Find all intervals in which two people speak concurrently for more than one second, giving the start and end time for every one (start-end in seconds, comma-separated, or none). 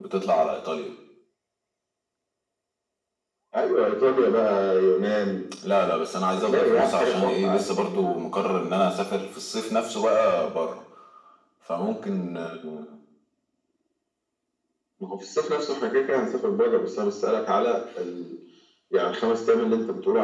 6.4-7.6